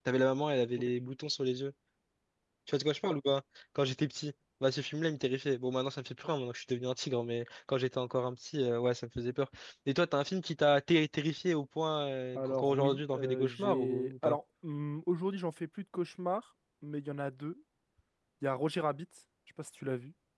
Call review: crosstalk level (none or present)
present